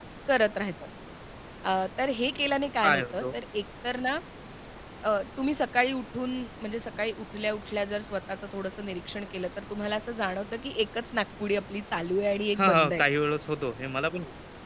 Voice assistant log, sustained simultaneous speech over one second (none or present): none